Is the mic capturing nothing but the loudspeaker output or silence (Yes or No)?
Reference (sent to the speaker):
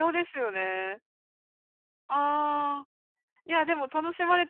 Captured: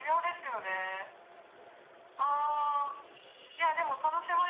Yes